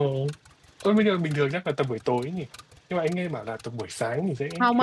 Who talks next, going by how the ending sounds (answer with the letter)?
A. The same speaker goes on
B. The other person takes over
B